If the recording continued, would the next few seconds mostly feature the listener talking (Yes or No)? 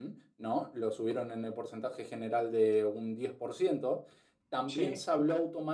No